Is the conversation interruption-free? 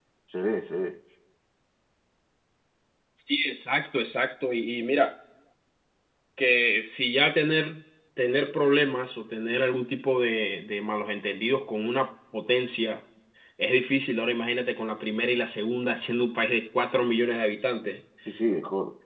Yes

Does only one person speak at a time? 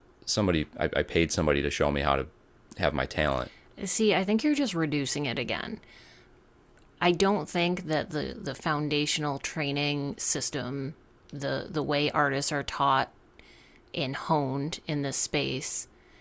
Yes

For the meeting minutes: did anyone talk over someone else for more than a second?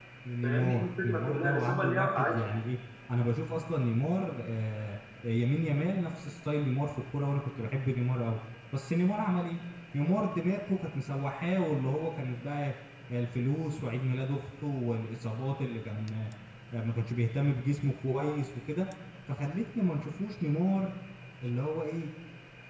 Yes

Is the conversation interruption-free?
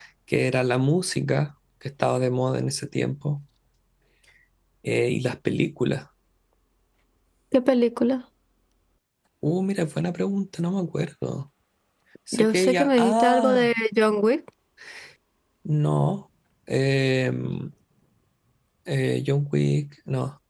No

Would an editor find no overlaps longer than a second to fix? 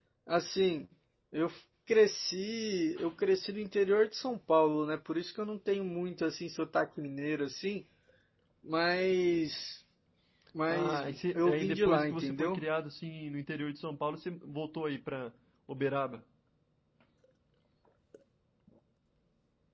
No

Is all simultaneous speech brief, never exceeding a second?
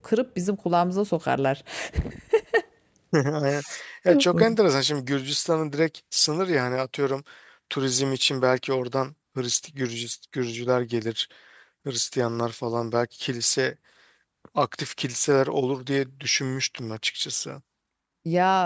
Yes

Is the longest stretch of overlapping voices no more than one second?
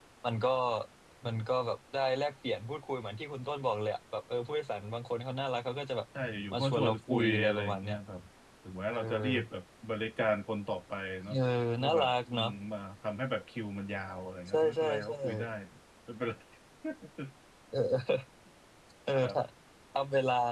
No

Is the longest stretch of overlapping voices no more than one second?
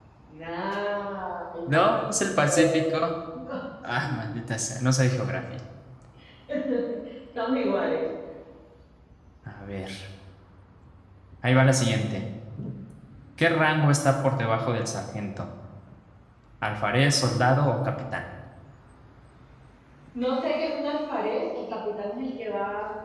No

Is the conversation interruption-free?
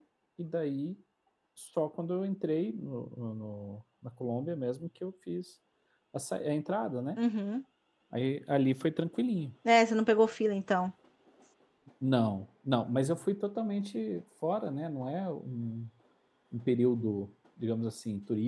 Yes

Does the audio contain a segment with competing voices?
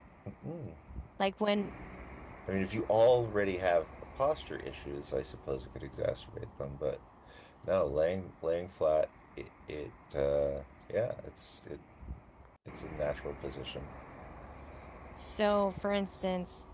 No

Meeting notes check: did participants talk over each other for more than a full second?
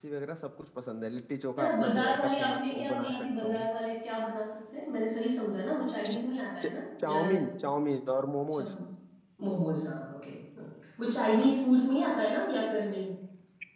Yes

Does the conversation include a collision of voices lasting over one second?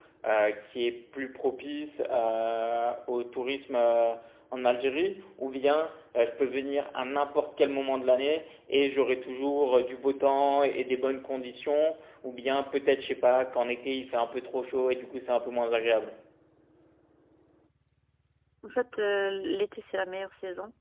No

